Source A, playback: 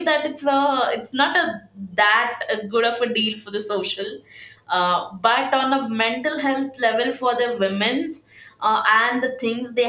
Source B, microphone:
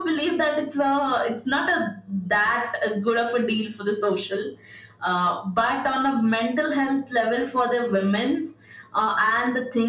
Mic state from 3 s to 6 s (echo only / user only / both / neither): echo only